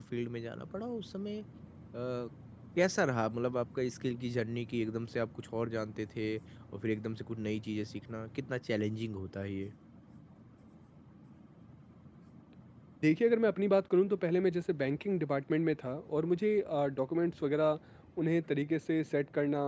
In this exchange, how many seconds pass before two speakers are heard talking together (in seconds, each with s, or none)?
none